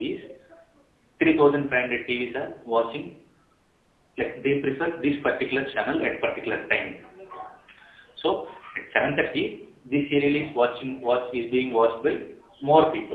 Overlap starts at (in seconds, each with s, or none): none